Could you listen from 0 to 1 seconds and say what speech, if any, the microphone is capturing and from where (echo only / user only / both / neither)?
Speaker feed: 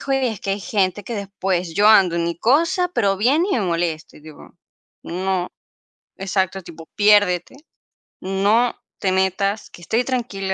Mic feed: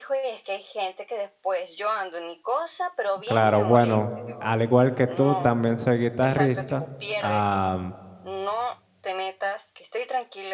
echo only